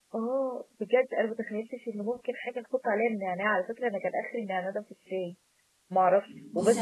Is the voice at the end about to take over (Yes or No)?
Yes